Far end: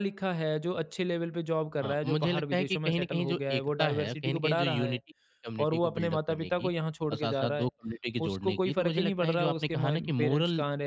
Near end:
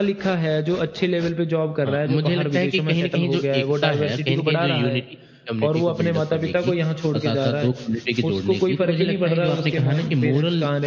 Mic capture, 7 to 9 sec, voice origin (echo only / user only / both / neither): echo only